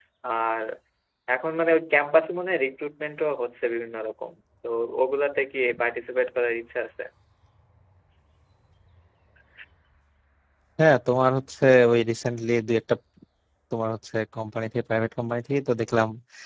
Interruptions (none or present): none